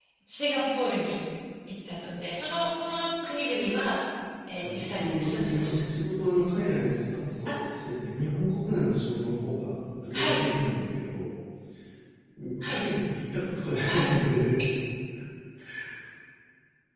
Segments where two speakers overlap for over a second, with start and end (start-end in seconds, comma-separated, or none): 4.6-5.8